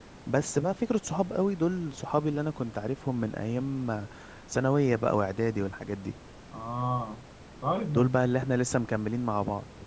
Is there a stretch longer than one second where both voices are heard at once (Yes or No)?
No